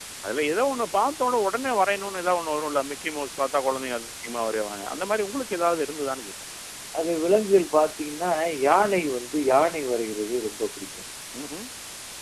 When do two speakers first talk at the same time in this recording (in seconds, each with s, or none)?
none